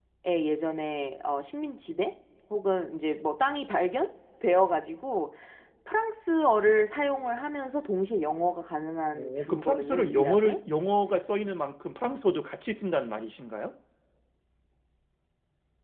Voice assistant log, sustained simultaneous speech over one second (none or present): present